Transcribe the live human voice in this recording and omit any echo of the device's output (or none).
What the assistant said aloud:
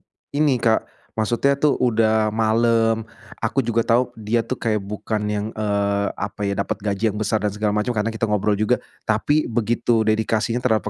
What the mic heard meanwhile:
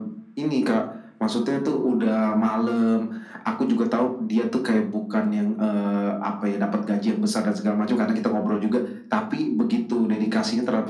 none